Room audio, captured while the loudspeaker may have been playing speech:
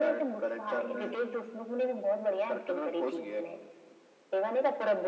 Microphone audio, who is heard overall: echo only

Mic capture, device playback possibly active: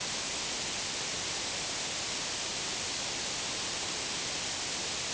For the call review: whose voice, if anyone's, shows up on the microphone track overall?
neither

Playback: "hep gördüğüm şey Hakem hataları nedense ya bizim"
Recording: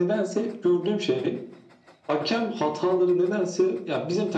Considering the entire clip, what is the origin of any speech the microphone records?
echo only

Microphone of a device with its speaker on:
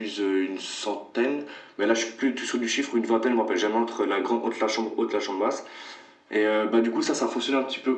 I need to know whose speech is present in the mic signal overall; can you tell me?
echo only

